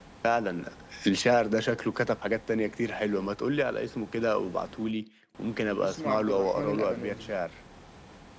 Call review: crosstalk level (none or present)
present